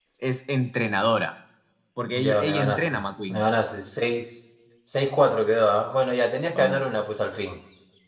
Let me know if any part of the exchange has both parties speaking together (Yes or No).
Yes